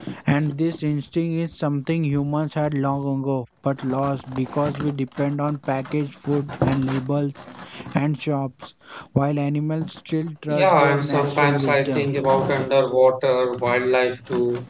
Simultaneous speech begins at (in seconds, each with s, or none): 10.5 s